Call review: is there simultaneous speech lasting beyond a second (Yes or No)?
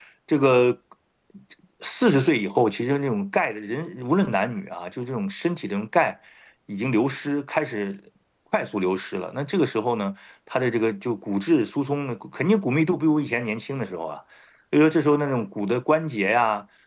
No